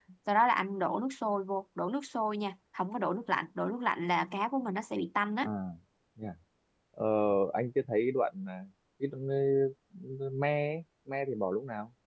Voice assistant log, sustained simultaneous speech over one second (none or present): none